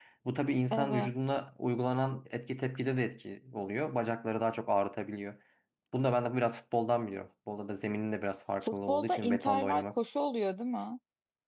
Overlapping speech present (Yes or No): Yes